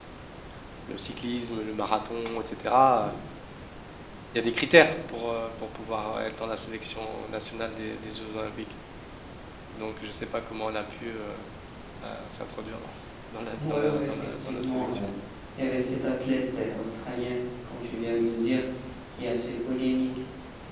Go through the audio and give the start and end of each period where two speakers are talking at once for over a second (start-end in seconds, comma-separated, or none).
13.6-15.1